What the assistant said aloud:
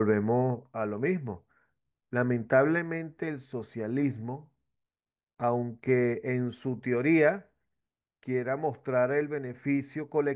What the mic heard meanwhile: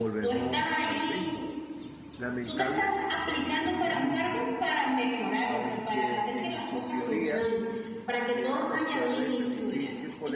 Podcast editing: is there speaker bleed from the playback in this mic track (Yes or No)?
Yes